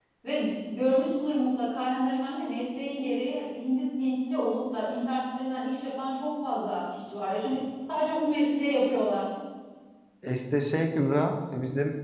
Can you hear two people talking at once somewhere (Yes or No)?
No